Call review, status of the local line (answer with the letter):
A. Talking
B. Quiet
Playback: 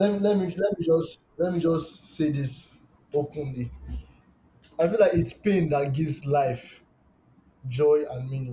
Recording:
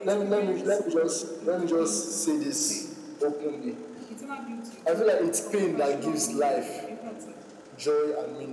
A